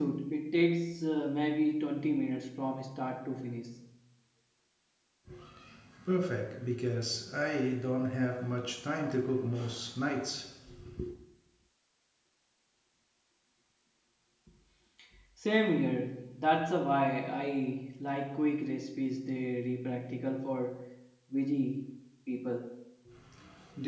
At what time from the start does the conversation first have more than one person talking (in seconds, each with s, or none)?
none